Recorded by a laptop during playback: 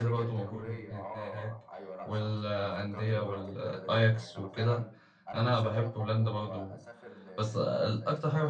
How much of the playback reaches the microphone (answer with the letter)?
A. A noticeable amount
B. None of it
A